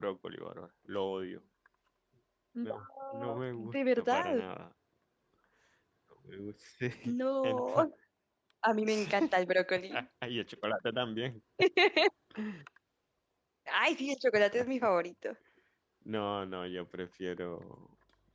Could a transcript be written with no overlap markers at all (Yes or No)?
No